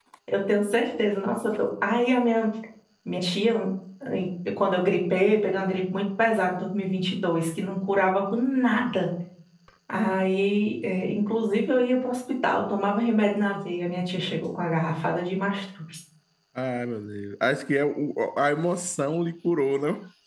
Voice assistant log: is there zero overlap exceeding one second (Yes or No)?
Yes